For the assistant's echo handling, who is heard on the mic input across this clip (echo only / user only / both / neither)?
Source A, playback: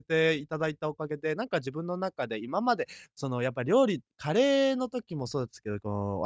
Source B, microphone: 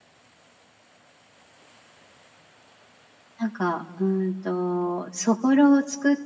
user only